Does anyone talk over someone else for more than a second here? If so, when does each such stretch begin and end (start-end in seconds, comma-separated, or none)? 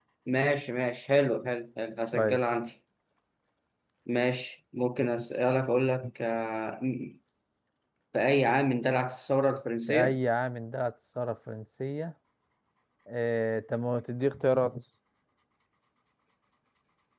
none